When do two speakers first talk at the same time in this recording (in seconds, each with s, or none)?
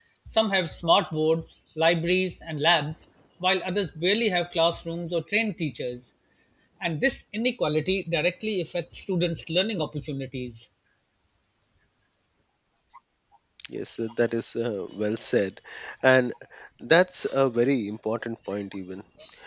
none